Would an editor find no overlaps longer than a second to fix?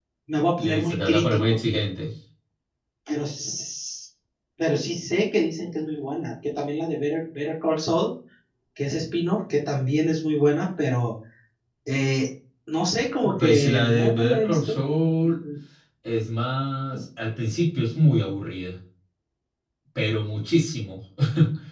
No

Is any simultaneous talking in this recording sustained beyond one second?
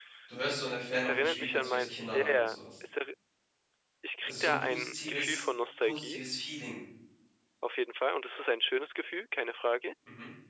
Yes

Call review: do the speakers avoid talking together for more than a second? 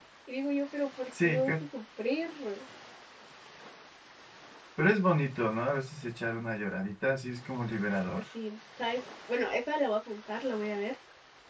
Yes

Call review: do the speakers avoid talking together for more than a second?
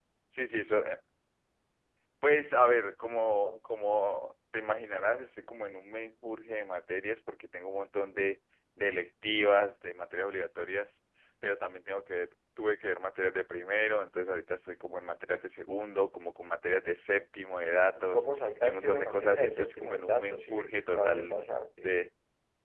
No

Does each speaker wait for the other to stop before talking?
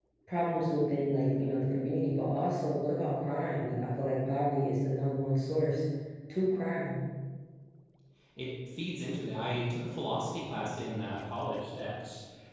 Yes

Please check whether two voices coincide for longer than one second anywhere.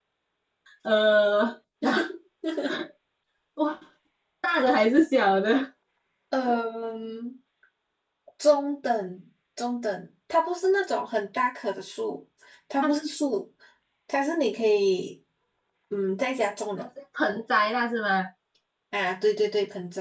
No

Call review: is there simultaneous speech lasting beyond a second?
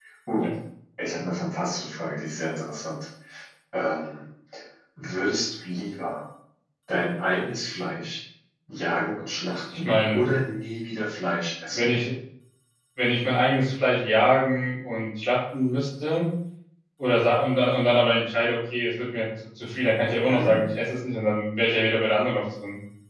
No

